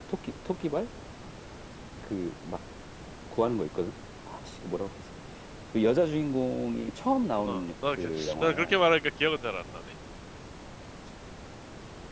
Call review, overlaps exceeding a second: present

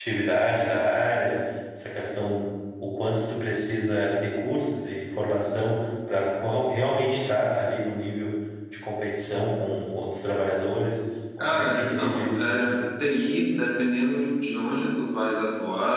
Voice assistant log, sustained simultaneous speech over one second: present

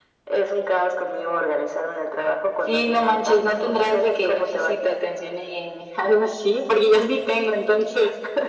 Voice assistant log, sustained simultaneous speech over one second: present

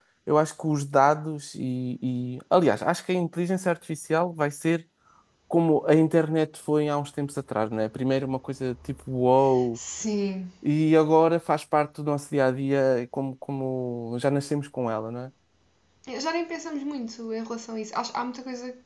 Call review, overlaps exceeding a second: none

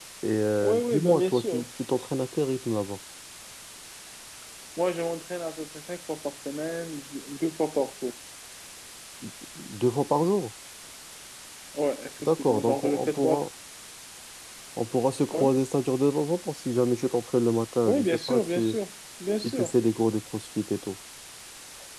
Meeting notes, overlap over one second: present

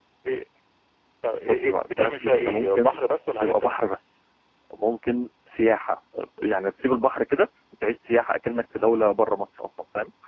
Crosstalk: present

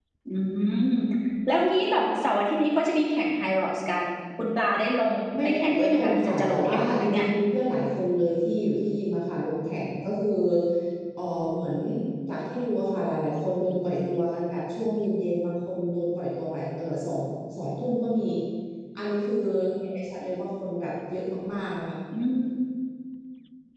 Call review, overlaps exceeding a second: present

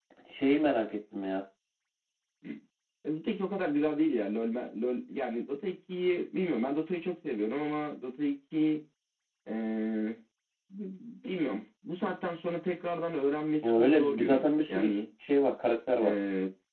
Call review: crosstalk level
present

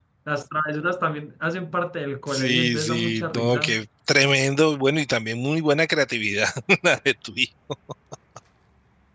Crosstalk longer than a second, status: present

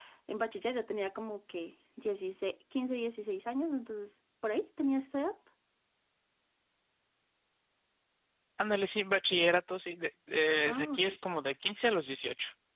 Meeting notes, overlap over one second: none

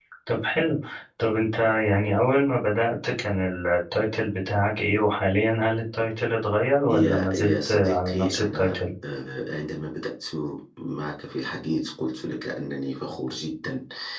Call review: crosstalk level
present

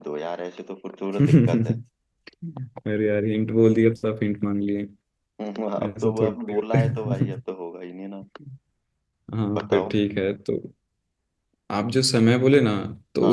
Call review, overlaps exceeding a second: present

